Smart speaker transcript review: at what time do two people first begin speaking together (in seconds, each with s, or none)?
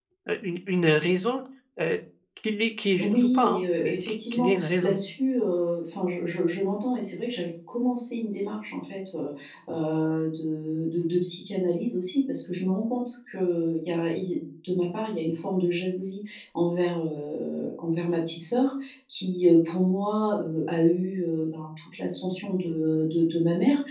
3.0 s